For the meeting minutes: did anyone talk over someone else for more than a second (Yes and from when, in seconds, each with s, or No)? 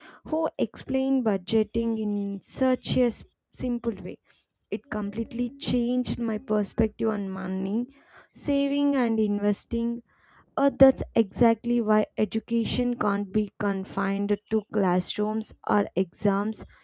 No